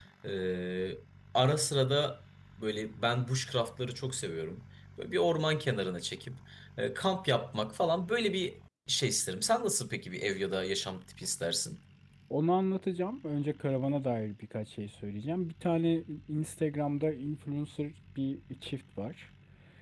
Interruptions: none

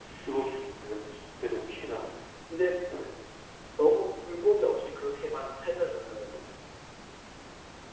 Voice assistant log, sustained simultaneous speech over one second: none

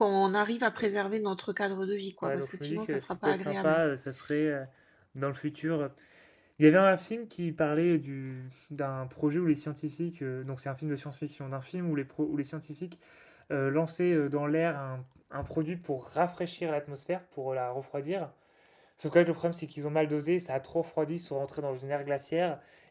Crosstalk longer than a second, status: present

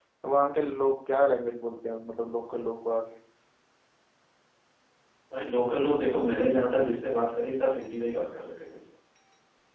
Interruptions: none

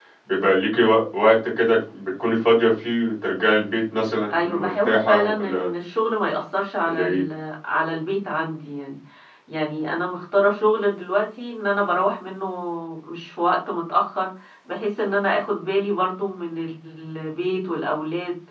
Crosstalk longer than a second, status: present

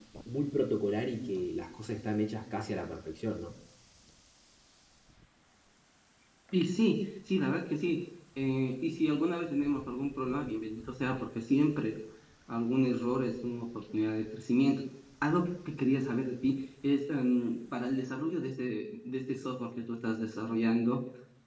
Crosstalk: none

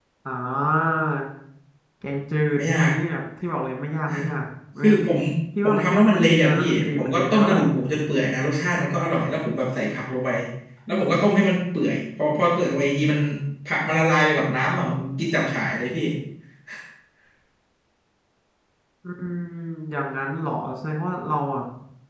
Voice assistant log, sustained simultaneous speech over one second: present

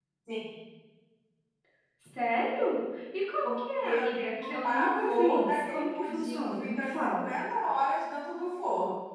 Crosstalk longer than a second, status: present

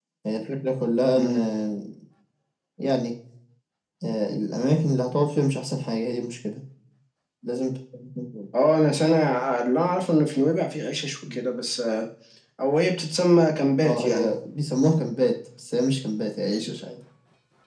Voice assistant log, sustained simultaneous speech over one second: none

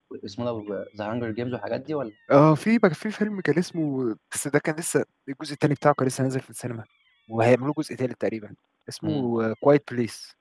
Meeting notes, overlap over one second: none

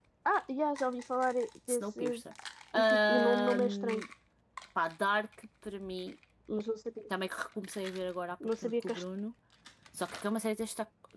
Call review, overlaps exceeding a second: present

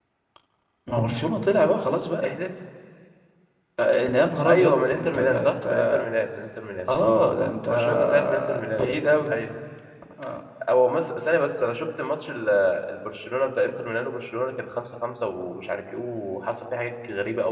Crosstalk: present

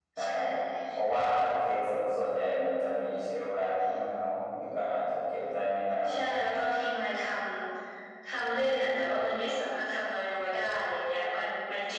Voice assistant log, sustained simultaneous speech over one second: none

